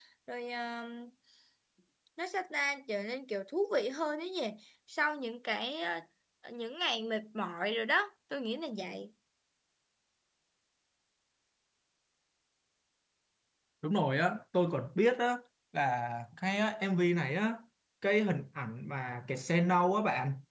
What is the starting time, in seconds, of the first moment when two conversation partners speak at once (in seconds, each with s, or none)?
none